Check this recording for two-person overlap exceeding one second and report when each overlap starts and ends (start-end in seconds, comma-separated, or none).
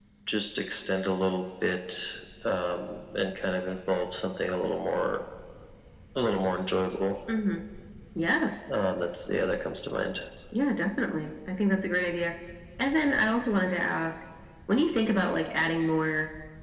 none